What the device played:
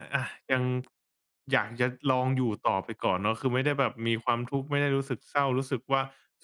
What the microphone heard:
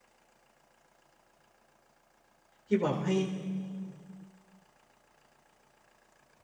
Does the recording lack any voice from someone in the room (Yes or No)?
No